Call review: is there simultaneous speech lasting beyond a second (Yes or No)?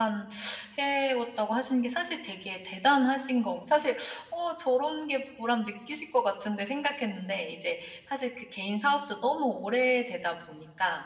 No